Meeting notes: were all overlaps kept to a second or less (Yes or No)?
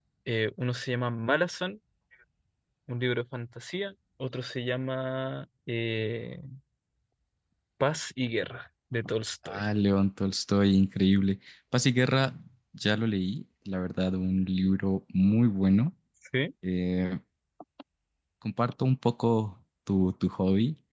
Yes